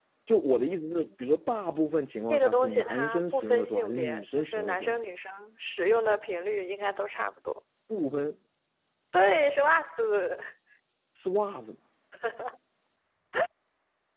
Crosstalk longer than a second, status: present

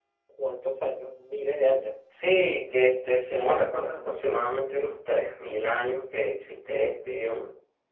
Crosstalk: none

